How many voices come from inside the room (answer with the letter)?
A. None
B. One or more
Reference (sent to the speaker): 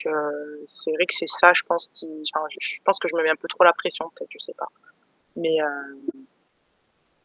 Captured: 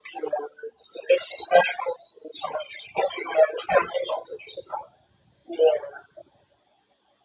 A